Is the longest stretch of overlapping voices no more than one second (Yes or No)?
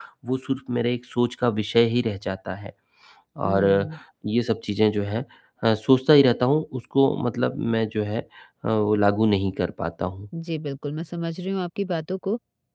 Yes